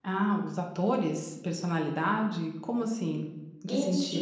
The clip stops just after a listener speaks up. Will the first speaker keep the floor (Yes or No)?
No